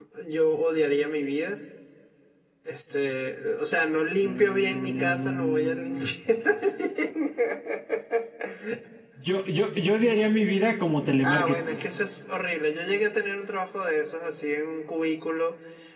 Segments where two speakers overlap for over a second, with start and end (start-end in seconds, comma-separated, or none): 4.2-6.1